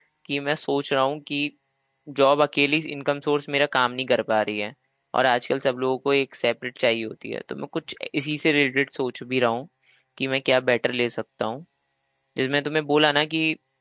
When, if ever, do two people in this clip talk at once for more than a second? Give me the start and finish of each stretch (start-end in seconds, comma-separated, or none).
none